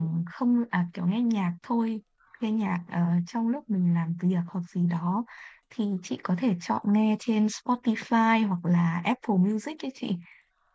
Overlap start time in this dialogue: none

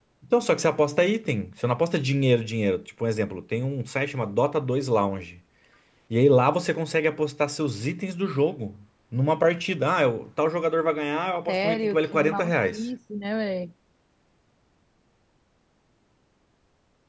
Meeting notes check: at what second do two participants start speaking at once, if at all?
11.5 s

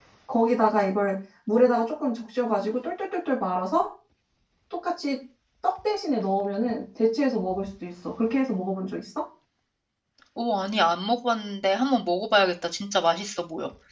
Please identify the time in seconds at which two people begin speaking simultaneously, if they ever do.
none

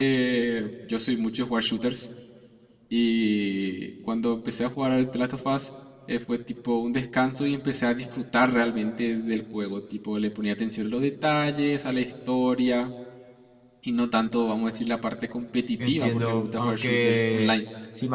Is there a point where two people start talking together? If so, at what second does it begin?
15.8 s

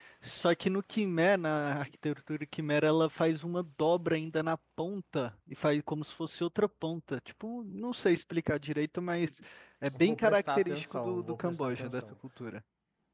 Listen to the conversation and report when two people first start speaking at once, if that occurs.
9.9 s

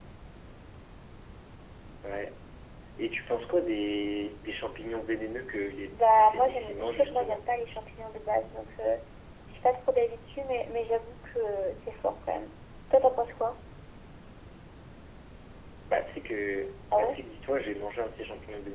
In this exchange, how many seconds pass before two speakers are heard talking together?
5.9 s

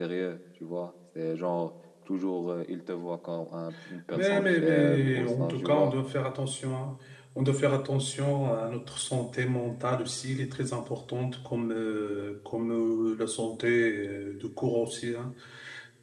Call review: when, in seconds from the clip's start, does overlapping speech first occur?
4.1 s

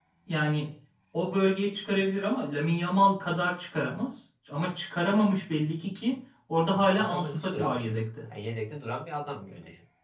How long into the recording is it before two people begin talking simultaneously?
6.7 s

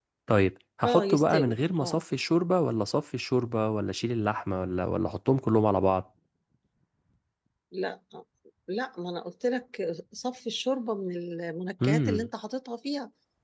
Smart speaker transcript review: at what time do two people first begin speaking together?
0.8 s

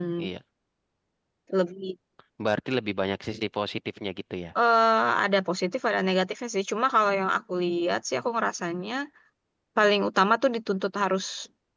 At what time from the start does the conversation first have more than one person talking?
none

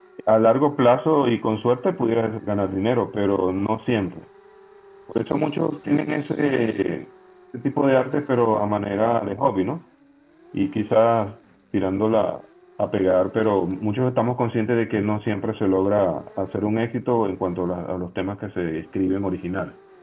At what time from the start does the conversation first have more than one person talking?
none

